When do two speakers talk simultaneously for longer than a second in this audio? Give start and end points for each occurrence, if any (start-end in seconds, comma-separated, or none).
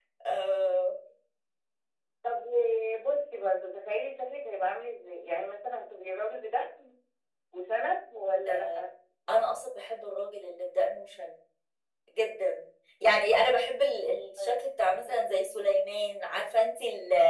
none